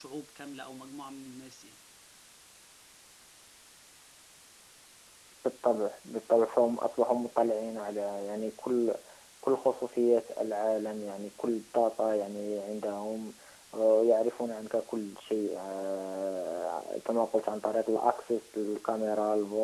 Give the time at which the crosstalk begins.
none

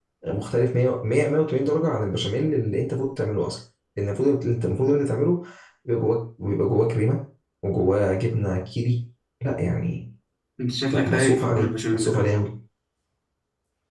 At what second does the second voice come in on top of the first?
10.9 s

